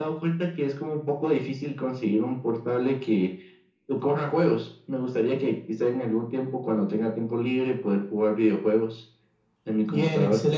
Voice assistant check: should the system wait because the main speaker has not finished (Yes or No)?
No